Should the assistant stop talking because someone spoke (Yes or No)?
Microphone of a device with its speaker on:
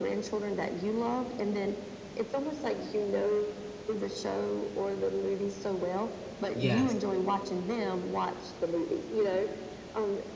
Yes